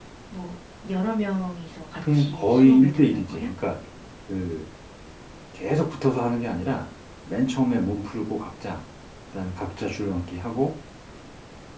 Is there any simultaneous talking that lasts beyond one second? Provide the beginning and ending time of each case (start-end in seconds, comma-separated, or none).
2.0-3.5